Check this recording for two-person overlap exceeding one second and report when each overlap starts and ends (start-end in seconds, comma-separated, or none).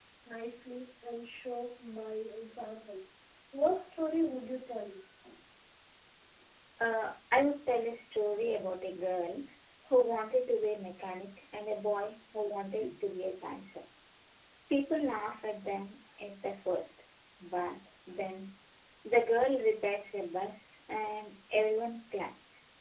none